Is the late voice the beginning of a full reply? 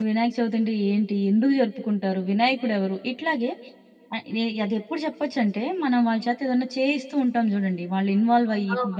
No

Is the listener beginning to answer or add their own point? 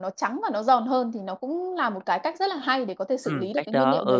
Yes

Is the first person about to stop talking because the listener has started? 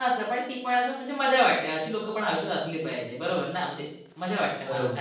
Yes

